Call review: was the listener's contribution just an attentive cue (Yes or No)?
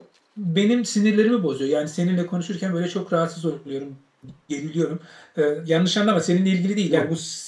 Yes